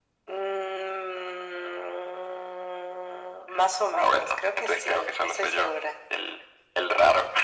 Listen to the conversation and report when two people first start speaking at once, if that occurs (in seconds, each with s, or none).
3.9 s